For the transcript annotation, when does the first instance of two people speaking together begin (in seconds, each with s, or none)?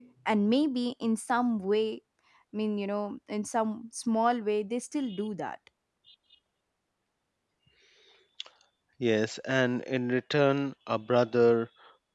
none